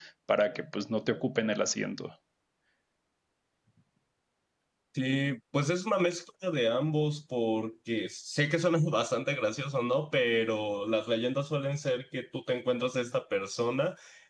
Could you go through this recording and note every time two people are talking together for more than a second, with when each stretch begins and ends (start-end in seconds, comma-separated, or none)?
none